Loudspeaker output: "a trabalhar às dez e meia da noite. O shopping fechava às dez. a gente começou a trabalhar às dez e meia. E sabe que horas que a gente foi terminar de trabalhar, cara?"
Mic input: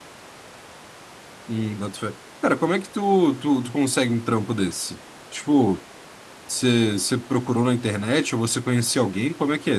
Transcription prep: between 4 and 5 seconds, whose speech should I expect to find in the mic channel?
user only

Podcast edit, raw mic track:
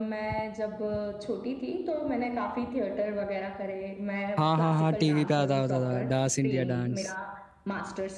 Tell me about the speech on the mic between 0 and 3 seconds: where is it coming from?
echo only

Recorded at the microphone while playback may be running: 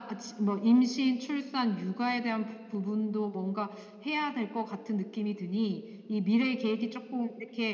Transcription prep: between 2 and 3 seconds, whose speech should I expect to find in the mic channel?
echo only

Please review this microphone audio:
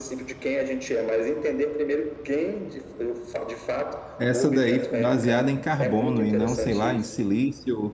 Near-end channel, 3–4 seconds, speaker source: echo only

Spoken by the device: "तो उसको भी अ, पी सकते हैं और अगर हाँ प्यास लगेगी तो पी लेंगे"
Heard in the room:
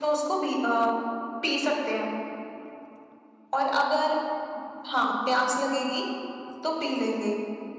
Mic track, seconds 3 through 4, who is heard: echo only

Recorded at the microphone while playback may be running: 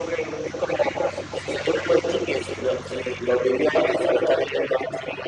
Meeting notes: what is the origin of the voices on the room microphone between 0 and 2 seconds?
echo only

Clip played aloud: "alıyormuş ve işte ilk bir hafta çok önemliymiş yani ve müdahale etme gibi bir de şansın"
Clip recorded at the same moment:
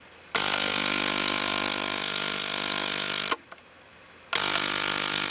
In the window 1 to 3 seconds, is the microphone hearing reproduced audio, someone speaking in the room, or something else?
neither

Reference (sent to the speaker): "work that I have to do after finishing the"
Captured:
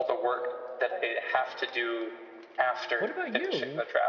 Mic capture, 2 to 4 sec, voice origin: both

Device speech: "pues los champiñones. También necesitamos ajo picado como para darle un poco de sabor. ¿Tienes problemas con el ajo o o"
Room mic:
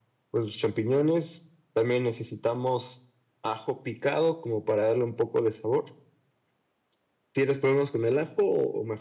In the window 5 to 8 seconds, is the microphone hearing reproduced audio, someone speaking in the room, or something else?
echo only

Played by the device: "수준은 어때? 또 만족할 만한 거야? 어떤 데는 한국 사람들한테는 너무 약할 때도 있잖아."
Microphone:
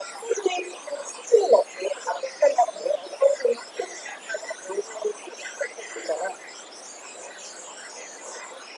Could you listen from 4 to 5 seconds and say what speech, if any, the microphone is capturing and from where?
echo only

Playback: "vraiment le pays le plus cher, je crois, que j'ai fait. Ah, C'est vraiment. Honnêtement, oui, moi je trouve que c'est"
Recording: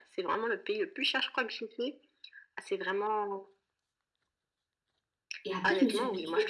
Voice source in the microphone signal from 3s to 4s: echo only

